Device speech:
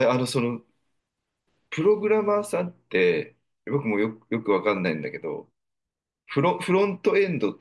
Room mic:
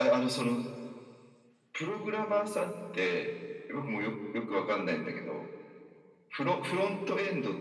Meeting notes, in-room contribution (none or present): none